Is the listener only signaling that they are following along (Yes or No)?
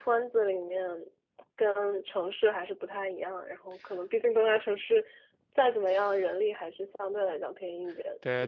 No